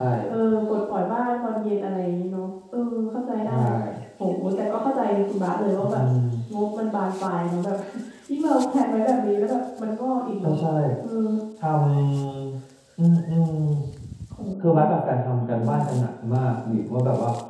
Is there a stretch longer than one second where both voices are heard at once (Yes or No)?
No